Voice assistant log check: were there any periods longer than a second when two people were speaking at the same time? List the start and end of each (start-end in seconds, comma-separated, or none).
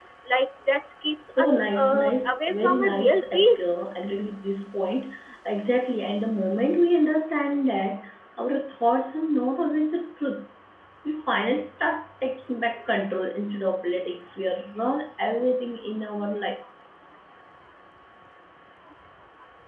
1.4-3.6